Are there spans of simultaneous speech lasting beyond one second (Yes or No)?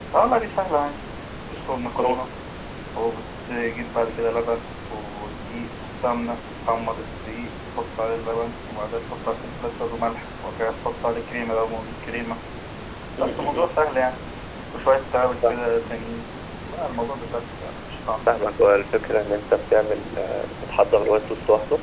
No